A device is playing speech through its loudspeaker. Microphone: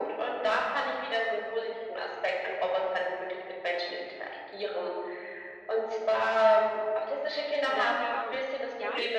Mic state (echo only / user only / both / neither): both